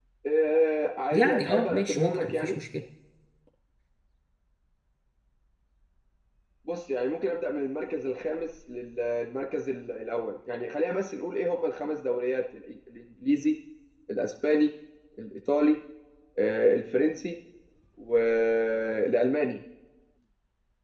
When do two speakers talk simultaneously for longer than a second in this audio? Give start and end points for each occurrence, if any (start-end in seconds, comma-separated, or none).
1.1-2.6